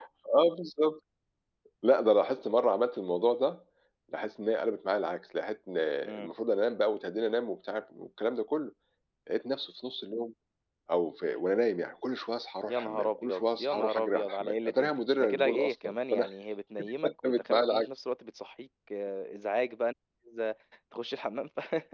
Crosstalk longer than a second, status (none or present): present